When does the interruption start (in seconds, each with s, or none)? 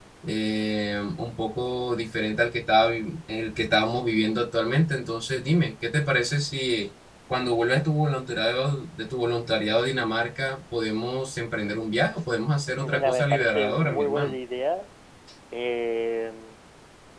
12.8 s